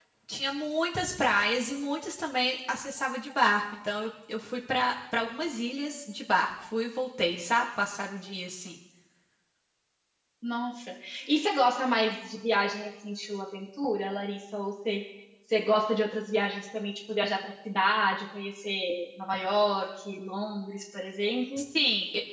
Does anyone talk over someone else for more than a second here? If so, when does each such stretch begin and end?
none

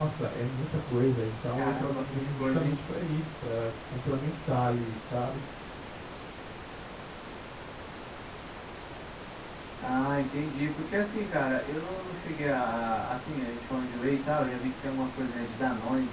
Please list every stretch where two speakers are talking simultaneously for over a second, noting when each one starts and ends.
1.5-2.8

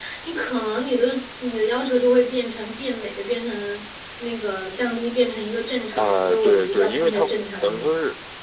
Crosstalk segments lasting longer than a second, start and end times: 5.9-7.9

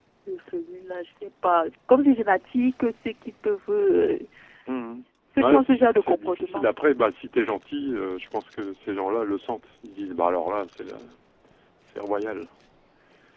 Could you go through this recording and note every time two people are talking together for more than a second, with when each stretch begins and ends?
5.3-6.7

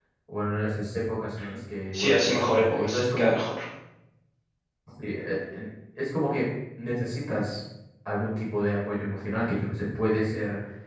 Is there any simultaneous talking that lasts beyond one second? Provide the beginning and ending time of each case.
1.9-3.3

